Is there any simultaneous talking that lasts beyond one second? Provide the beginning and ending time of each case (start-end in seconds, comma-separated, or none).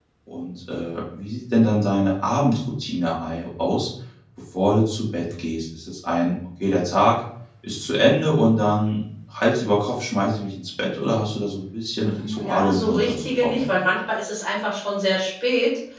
12.1-13.7